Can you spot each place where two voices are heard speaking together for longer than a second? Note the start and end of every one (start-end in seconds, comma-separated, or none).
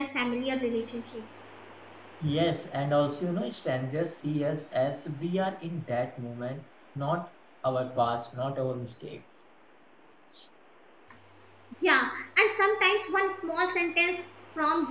none